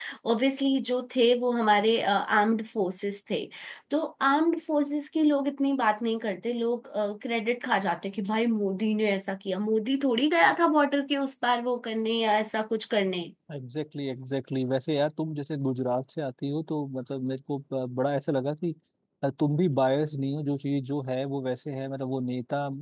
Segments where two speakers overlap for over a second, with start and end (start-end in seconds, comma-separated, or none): none